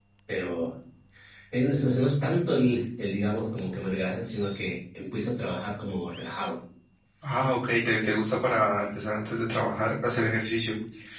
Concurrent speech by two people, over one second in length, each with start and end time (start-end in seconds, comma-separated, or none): none